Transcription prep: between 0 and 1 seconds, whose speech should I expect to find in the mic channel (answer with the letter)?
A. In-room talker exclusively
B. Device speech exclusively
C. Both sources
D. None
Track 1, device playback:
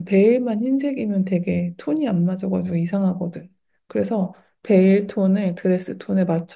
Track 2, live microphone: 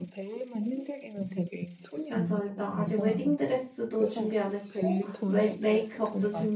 B